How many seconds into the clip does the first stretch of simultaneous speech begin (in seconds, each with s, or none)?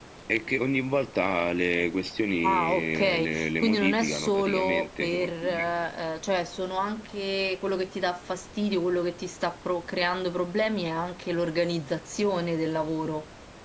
2.4 s